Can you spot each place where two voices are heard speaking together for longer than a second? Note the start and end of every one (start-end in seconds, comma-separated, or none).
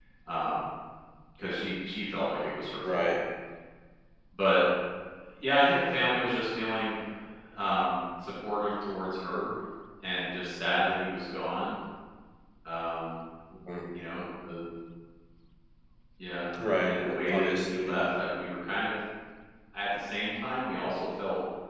16.6-18.0